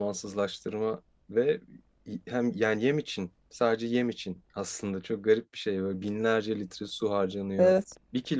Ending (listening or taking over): listening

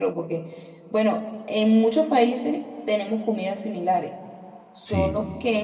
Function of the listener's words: listening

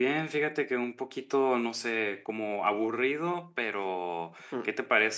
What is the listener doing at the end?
listening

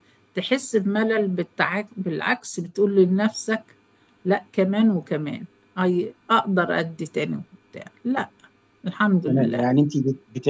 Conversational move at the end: taking over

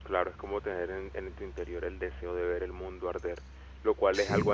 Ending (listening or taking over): listening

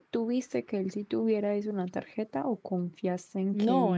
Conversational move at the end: taking over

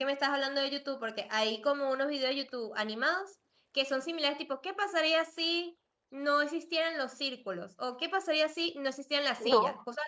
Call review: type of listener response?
listening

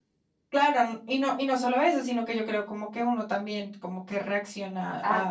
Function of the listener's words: taking over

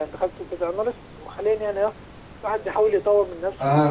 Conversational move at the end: taking over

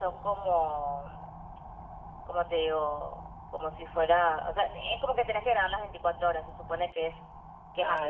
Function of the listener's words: taking over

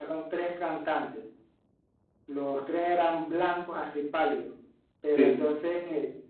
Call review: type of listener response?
listening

